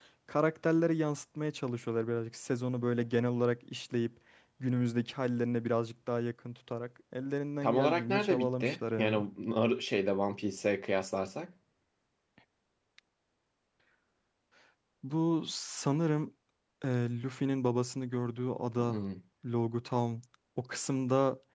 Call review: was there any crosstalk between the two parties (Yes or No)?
Yes